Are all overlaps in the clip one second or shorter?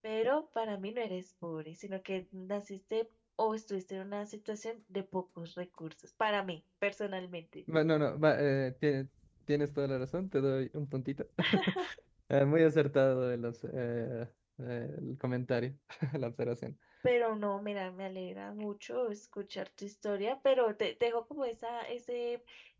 Yes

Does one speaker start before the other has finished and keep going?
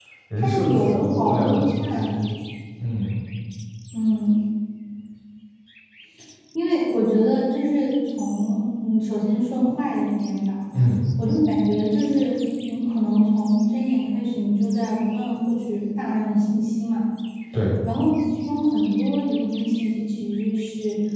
Yes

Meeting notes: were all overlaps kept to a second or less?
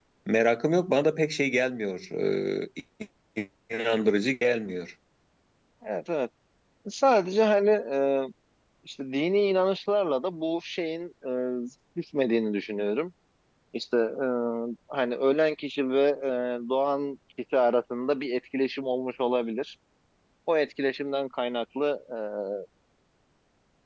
Yes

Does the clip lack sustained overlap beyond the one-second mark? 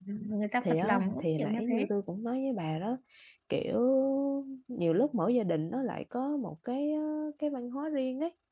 No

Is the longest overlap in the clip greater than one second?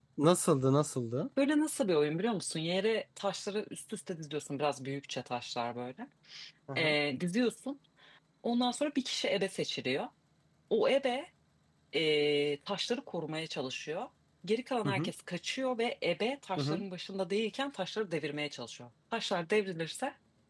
No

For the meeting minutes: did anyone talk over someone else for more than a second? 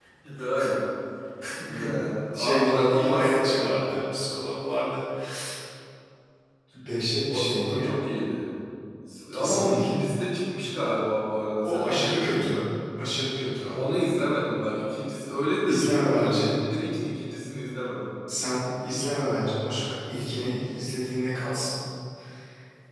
Yes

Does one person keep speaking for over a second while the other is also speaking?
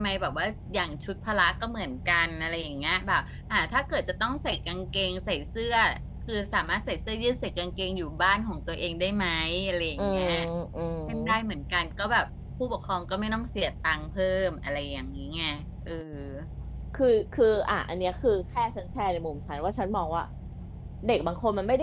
No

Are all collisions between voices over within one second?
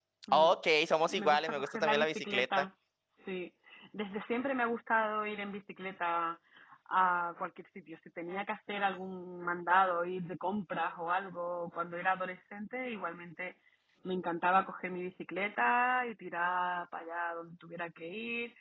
No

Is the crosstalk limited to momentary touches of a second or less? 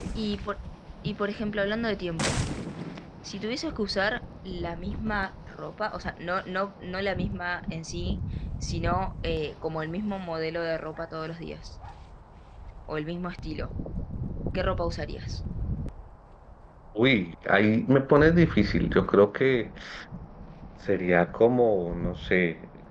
Yes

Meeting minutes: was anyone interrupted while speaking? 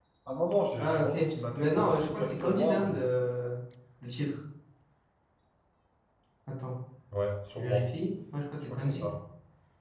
Yes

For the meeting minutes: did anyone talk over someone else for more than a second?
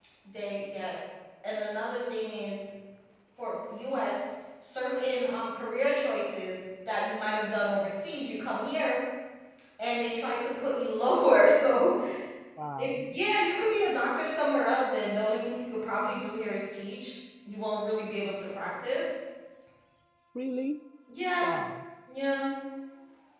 No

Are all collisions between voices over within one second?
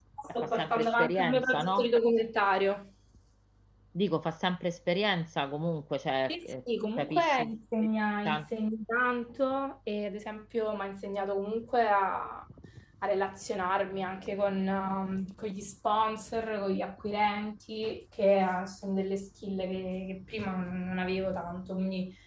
No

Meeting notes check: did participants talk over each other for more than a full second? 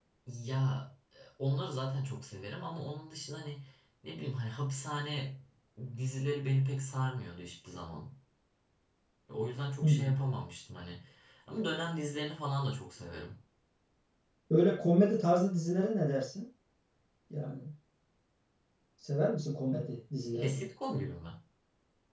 No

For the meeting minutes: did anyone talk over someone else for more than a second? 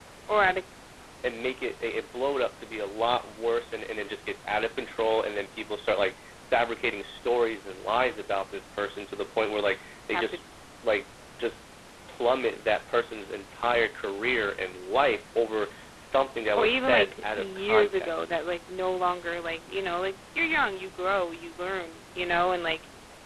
Yes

